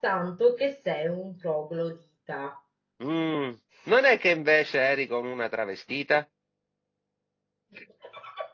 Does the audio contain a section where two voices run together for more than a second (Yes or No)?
No